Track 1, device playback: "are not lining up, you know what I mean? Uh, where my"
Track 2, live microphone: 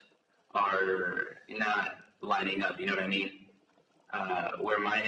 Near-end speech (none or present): none